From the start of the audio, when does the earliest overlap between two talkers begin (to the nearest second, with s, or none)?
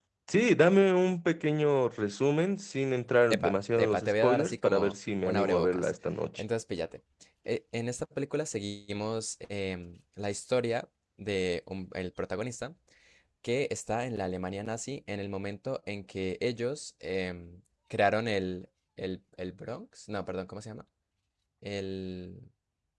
3 s